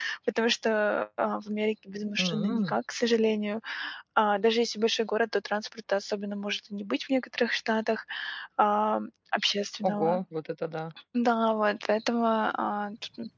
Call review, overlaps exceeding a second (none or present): none